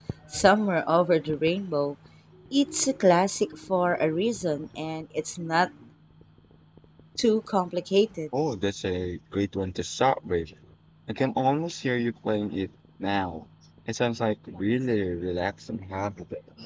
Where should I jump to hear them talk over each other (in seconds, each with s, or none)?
none